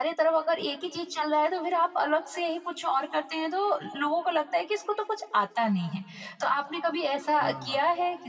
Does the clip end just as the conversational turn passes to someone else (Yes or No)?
No